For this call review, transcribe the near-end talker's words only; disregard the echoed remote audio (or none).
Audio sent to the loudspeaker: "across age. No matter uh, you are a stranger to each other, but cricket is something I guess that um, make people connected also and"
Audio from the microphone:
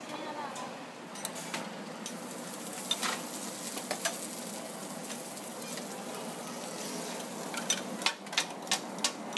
none